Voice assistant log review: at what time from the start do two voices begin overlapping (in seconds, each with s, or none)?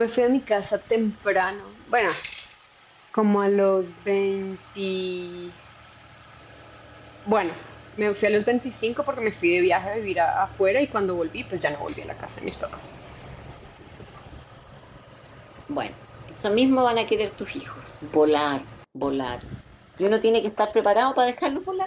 none